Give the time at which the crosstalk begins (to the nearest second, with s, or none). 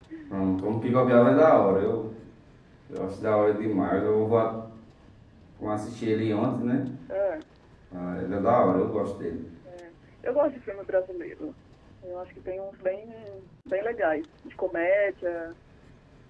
none